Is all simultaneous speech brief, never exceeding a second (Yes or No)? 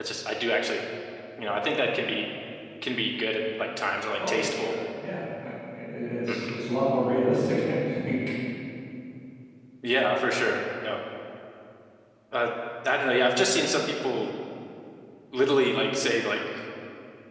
Yes